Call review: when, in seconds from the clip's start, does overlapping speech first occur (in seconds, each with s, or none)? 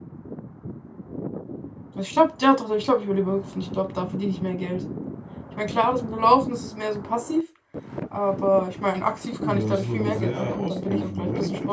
9.4 s